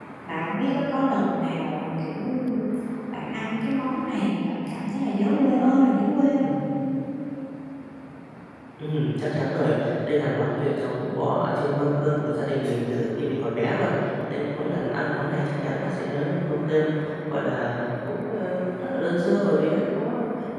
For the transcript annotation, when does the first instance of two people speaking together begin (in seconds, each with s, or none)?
none